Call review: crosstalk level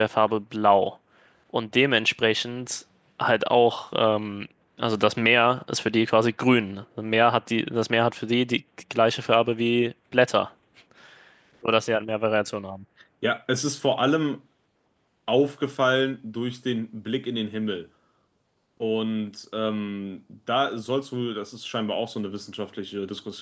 none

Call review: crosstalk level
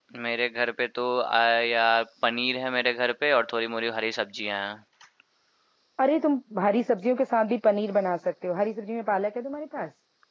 none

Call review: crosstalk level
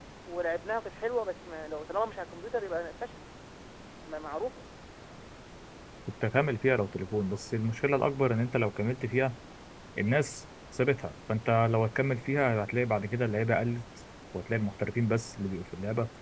none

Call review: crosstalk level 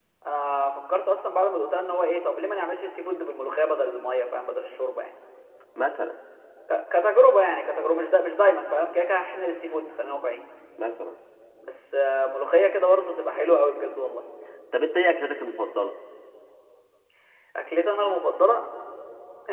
none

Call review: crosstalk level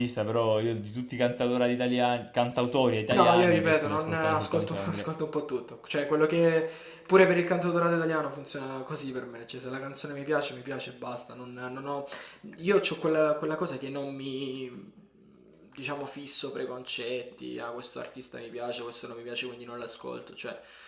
present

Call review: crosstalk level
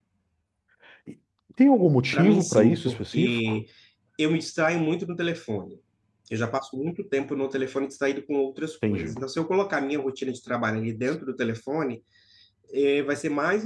present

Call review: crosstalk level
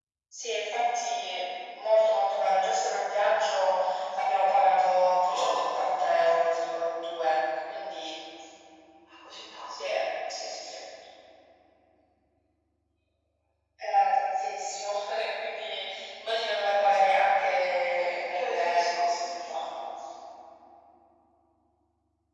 present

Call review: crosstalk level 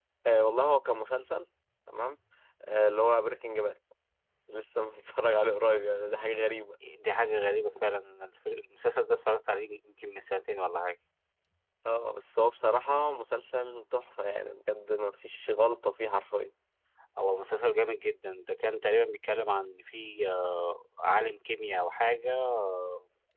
none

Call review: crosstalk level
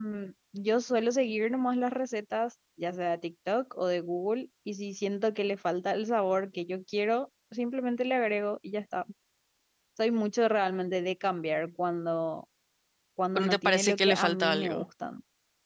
present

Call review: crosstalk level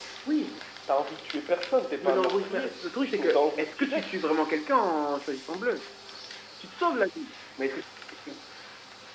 present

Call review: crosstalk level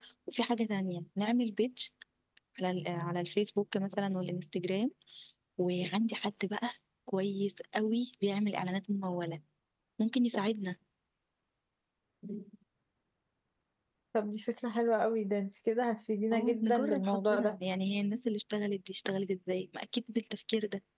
present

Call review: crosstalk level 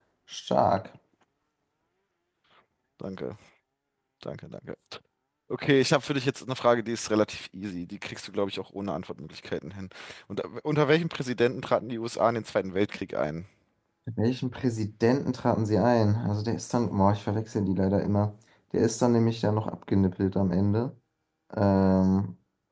none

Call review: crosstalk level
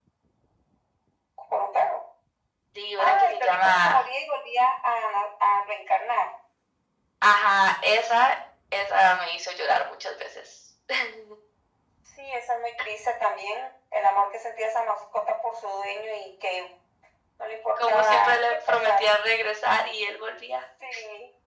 present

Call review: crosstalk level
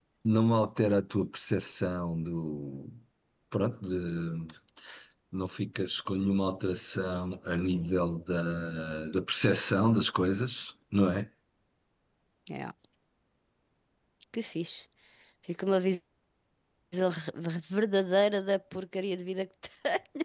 none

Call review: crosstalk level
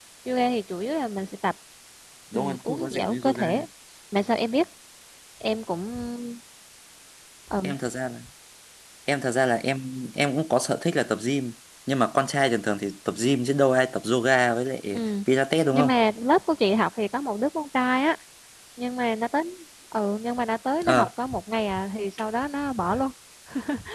present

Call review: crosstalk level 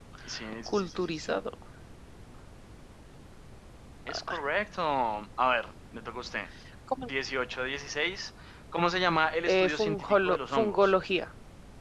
present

